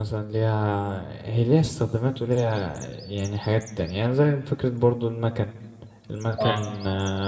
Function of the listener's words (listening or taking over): listening